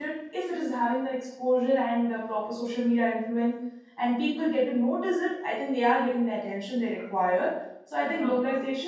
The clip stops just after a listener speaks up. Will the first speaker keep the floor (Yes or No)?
Yes